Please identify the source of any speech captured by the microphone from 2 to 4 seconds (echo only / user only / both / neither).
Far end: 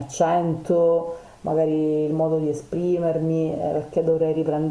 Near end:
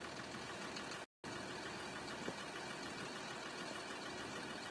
neither